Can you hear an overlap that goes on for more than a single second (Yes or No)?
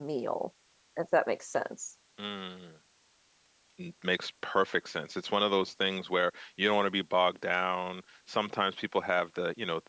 No